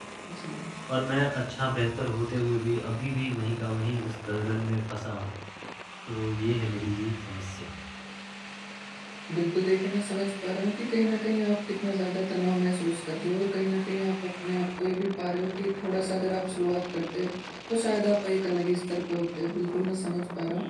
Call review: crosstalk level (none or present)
none